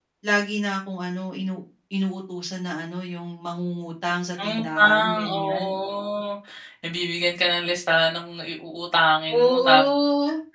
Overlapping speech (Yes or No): Yes